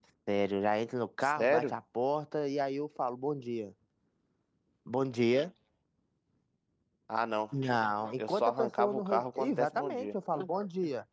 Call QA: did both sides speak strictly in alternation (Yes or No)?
No